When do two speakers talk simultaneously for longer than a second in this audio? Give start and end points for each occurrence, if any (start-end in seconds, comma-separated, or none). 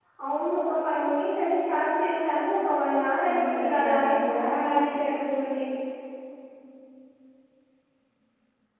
3.3-5.0